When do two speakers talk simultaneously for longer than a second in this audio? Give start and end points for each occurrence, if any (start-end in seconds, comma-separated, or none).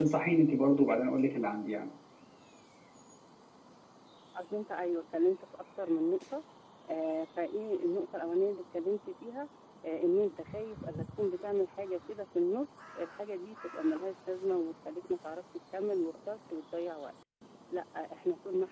none